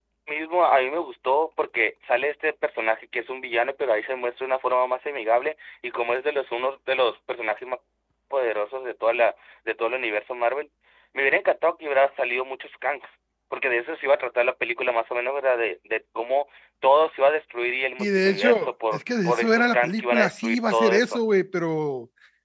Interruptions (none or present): present